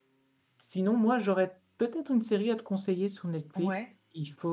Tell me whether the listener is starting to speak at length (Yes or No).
No